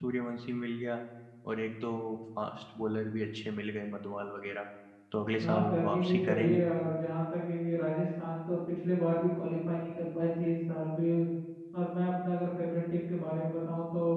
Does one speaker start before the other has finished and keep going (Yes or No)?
Yes